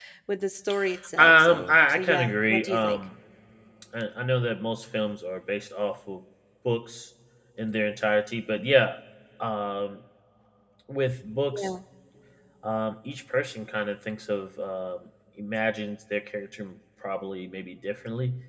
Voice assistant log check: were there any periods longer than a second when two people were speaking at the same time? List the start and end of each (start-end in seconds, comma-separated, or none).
1.2-3.0